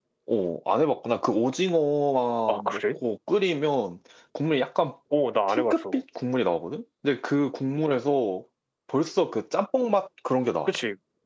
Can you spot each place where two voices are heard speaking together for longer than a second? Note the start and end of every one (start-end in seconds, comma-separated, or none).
none